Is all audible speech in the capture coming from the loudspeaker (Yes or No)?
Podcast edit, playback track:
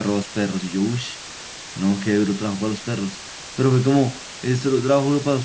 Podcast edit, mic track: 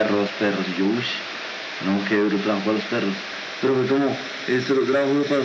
Yes